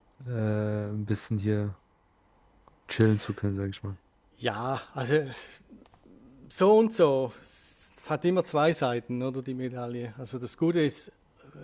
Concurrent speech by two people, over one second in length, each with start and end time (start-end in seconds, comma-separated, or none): none